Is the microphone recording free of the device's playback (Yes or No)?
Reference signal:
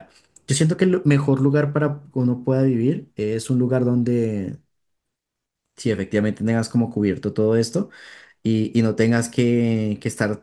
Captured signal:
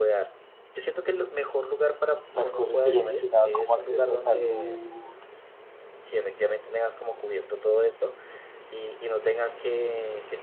No